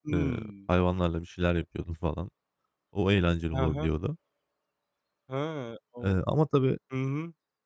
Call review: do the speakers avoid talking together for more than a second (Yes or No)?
Yes